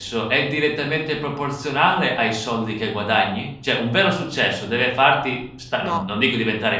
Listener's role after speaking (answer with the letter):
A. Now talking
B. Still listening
B